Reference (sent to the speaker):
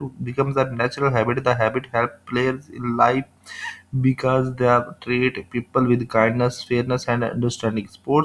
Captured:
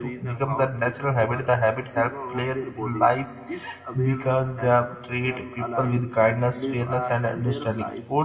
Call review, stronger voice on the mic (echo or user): echo